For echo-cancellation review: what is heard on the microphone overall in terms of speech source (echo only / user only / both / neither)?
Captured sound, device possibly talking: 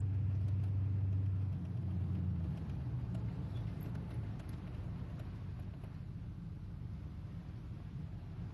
neither